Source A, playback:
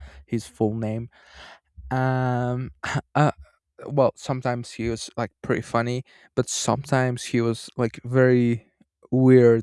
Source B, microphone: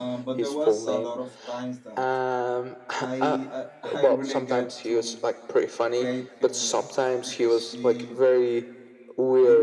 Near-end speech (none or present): present